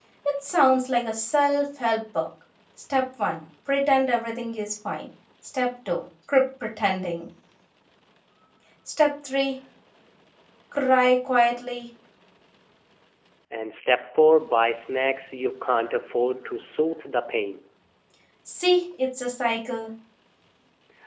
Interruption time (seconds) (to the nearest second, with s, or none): none